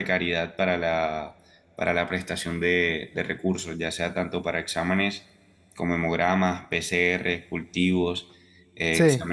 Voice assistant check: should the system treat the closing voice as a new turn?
No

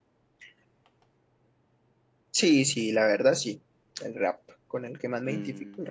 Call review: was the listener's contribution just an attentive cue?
No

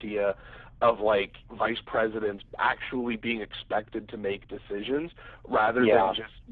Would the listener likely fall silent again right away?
Yes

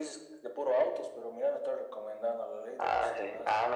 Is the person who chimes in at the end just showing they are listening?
No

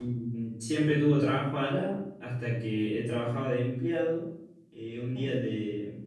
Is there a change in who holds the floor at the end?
No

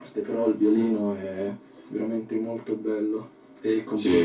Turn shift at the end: Yes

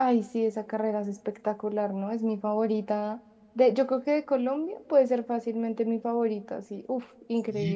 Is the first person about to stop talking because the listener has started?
Yes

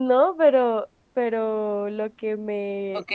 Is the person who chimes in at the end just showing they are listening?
No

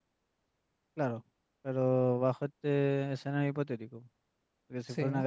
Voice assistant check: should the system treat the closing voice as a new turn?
No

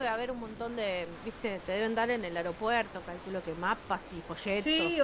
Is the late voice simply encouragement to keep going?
No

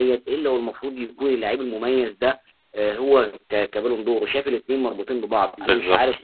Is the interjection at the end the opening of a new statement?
No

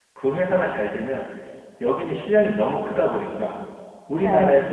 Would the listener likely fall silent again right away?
Yes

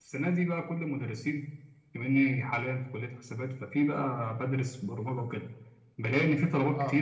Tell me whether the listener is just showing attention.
Yes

